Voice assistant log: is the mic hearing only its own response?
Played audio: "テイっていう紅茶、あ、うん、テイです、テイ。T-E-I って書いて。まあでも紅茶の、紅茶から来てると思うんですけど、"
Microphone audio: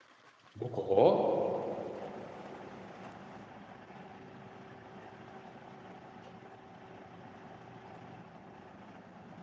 No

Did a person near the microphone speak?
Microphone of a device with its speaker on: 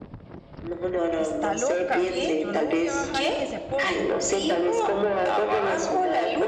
Yes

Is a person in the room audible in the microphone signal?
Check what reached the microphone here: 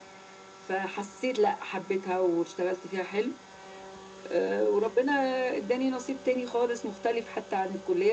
No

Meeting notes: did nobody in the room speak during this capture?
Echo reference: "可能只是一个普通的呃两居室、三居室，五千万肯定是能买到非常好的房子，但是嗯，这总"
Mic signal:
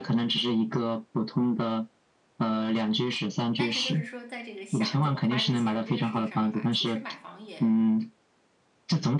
No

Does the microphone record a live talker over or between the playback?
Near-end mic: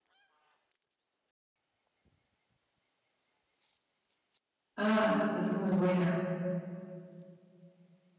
Yes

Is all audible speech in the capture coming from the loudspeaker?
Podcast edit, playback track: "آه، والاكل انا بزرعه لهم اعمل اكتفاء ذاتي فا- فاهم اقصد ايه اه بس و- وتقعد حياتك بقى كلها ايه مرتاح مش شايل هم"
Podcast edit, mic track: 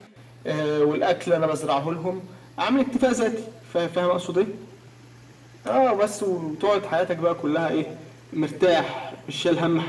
Yes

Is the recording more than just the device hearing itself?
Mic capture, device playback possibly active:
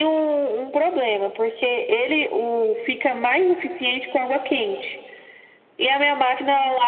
No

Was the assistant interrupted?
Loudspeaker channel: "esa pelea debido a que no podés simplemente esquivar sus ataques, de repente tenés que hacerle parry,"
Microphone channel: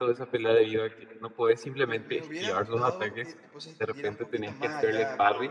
Yes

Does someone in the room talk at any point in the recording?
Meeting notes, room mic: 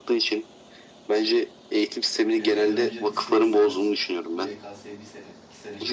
Yes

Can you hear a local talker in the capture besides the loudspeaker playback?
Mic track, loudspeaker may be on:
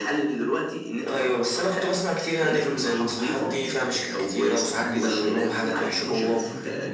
Yes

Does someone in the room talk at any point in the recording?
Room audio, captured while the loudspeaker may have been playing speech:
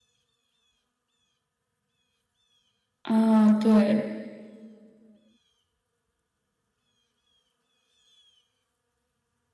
Yes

